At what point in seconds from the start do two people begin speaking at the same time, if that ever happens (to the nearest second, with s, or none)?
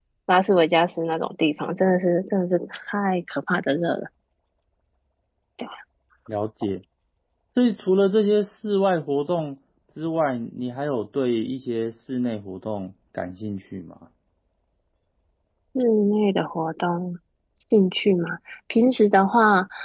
none